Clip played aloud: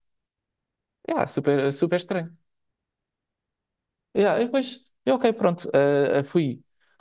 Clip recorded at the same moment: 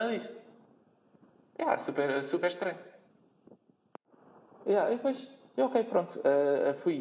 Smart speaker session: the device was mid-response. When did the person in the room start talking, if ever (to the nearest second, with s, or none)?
none